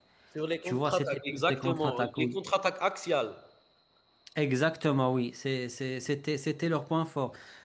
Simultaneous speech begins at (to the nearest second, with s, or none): 1 s